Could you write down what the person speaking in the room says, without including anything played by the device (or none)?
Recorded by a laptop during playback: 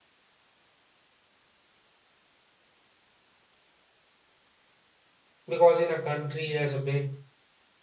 Because in a country as big